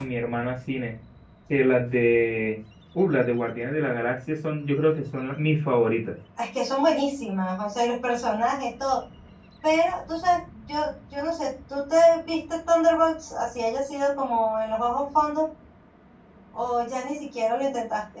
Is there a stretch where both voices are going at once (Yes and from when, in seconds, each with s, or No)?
No